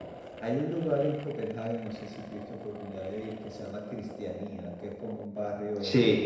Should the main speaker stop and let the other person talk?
No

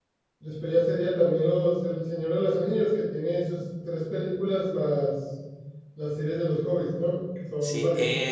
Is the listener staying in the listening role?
No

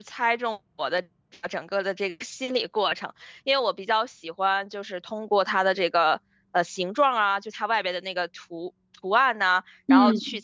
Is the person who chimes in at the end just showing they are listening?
Yes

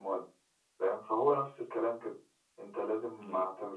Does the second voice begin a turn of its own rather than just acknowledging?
No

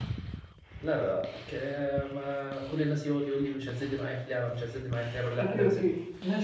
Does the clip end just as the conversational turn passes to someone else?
Yes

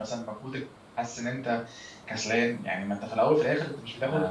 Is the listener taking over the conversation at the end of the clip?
No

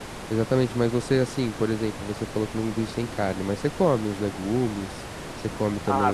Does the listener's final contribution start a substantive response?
Yes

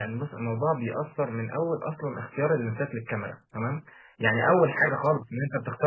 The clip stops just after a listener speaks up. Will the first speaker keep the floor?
Yes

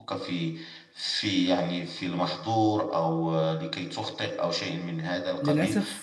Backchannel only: No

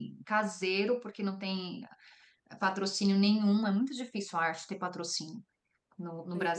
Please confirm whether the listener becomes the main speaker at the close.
No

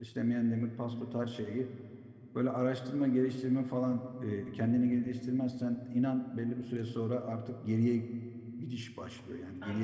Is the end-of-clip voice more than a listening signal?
Yes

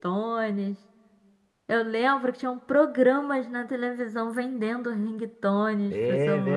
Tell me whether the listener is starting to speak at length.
Yes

